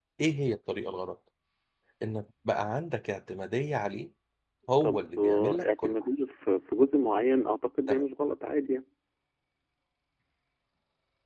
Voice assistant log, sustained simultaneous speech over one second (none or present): present